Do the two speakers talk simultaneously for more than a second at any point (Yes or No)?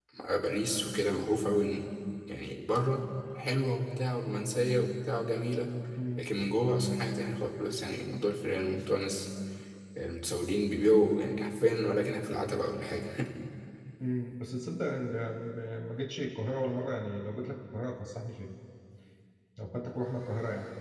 No